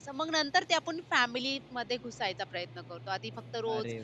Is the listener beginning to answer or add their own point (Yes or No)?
No